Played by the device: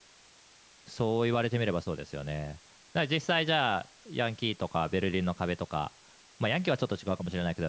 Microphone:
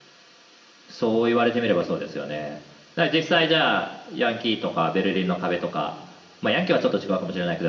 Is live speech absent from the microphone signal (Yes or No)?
Yes